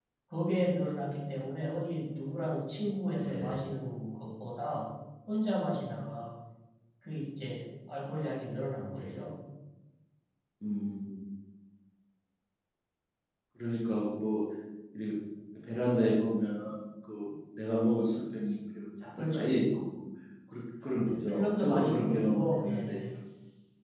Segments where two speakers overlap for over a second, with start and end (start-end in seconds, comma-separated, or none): 21.1-23.0